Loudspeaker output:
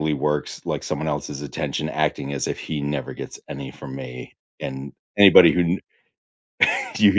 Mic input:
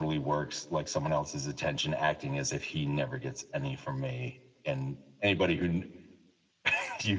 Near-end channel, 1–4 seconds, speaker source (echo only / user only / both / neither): echo only